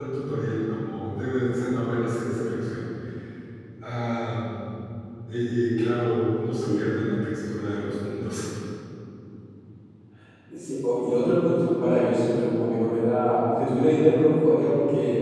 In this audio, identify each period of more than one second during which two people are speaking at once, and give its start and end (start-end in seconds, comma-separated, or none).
none